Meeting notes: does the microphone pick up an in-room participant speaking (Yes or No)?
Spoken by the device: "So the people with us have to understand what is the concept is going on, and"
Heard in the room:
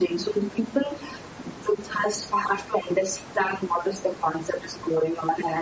No